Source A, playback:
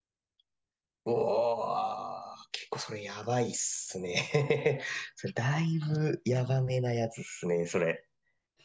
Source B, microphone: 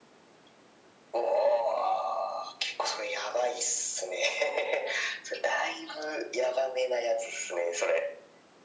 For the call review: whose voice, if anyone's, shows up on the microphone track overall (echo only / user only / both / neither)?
echo only